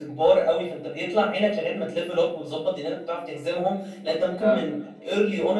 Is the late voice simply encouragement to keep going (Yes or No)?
Yes